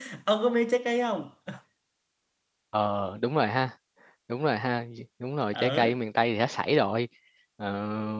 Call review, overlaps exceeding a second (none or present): none